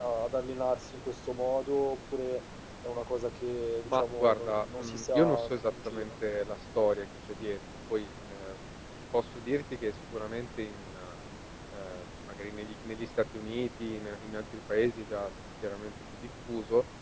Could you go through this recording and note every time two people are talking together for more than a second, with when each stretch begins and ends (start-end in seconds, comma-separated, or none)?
3.9-6.1